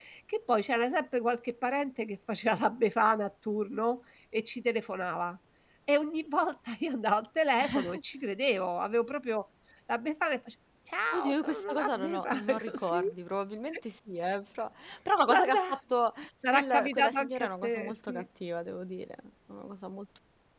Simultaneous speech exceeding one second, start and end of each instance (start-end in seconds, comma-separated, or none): 11.1-13.0, 16.5-18.2